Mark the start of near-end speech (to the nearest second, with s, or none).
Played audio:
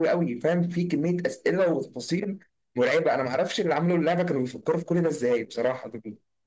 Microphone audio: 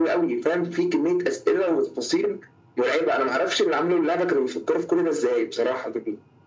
none